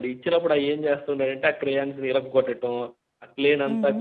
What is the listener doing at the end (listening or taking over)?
listening